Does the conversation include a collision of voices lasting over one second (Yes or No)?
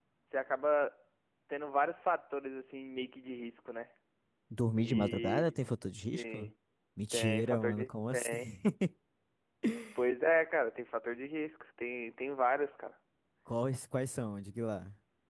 Yes